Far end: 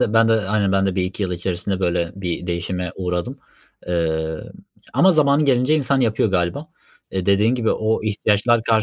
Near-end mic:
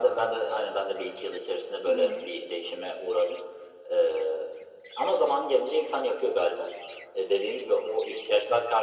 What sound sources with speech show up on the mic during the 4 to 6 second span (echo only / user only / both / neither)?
echo only